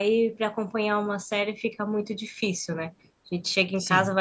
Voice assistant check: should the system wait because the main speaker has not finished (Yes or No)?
Yes